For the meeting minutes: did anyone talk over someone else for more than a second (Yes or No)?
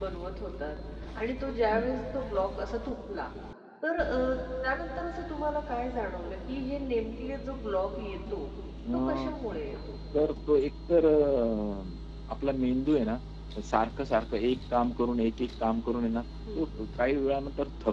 No